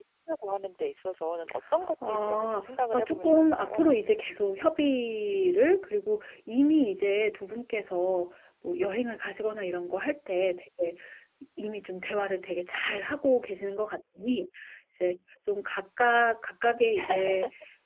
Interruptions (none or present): present